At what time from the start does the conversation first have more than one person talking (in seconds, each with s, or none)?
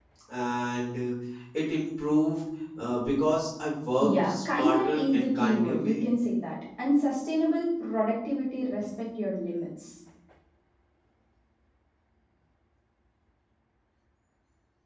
4.0 s